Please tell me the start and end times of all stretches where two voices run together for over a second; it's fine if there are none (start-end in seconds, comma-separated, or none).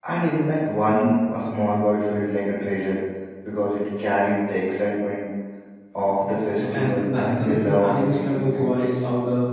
6.3-8.9